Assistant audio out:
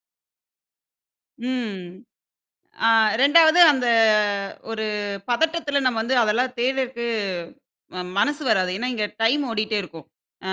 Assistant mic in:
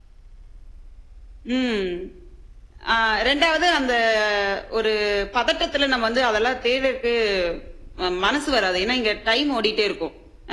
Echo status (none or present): present